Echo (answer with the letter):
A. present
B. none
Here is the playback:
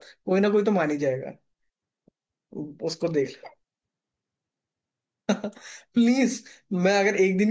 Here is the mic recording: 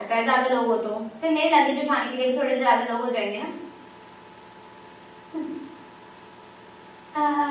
B